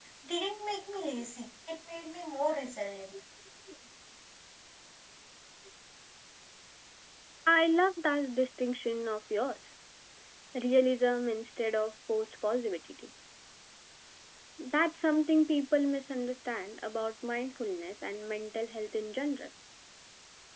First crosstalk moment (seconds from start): none

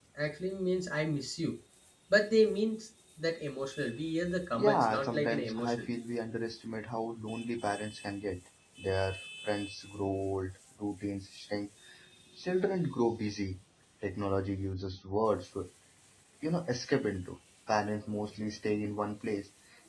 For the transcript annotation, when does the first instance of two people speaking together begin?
4.5 s

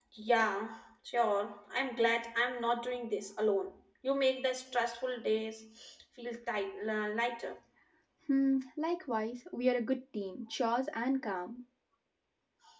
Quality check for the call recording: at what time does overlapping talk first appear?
none

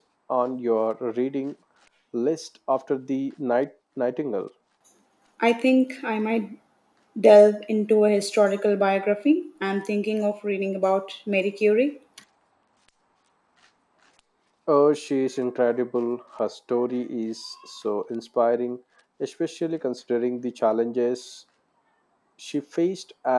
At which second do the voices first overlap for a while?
none

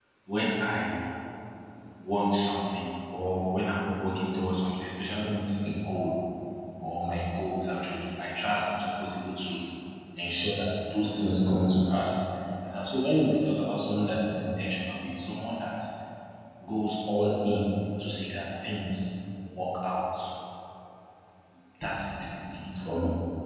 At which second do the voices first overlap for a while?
none

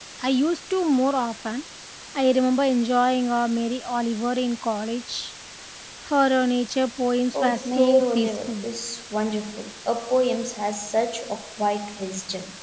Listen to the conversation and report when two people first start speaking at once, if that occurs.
7.3 s

